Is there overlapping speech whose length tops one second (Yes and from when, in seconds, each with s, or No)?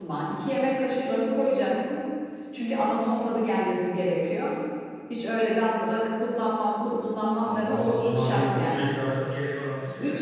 Yes, from 7.5 s